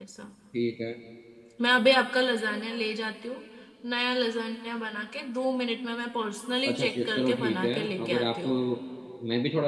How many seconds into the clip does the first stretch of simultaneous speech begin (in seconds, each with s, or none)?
6.6 s